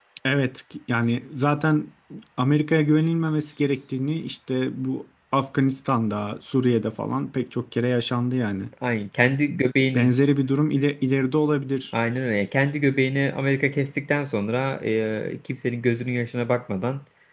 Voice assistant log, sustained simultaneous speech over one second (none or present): none